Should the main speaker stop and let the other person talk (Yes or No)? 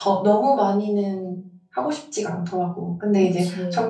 No